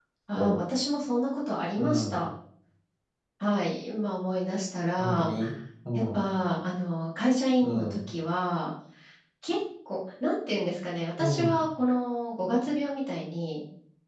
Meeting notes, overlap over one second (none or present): none